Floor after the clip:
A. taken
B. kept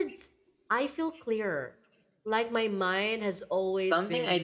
A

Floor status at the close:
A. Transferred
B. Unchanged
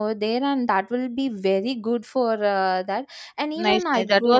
A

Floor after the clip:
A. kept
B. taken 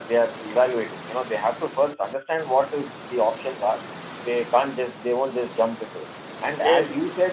A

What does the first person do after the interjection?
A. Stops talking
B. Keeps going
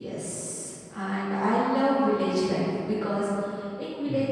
B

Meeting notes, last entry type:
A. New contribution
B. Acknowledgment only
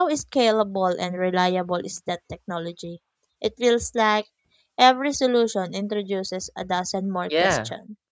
A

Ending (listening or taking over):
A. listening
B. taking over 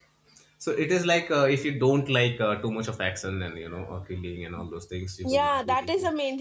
B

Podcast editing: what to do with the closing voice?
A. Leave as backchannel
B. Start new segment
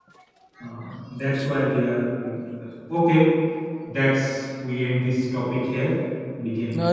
B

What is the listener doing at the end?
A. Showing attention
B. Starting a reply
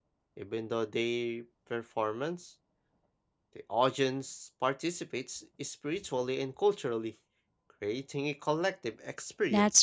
B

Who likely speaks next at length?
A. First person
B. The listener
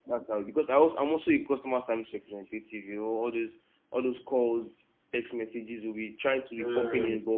A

